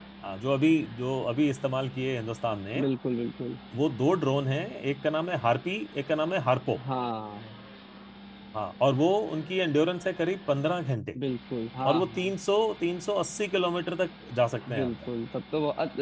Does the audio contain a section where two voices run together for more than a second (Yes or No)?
No